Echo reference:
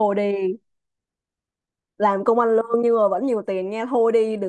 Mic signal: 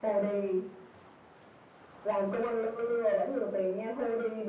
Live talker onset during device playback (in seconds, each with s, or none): none